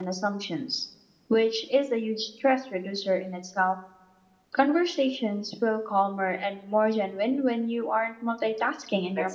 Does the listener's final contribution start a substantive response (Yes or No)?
Yes